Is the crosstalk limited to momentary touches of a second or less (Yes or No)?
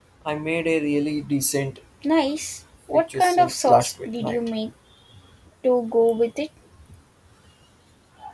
No